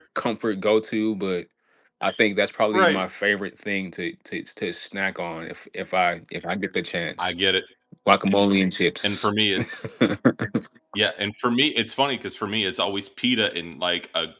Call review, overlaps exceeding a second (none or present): none